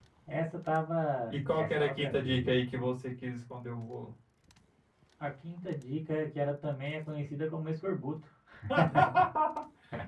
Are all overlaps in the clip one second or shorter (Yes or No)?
No